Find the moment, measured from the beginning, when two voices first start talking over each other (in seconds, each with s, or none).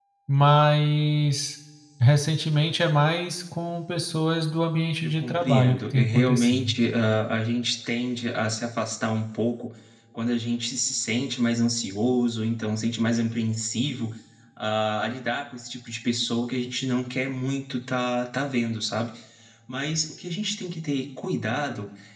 5.0 s